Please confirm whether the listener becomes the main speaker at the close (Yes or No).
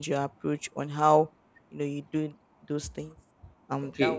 Yes